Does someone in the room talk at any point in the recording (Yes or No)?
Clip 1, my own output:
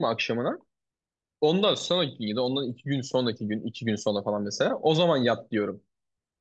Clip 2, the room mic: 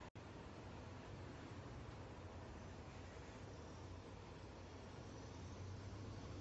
No